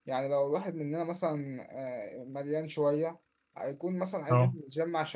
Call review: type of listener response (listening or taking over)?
listening